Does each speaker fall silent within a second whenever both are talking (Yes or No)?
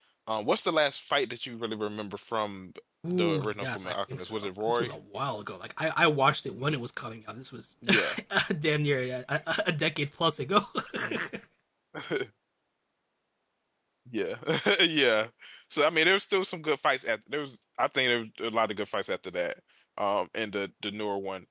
No